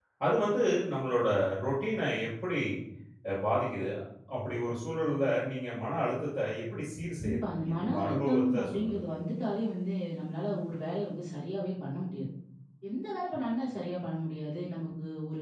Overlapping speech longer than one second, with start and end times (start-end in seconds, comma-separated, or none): 7.2-9.0